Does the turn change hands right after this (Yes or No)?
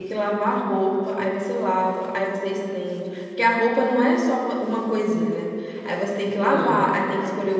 No